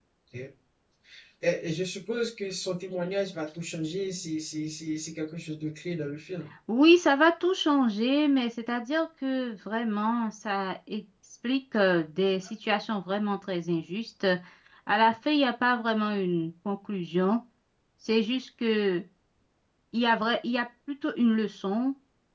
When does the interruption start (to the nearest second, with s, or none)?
none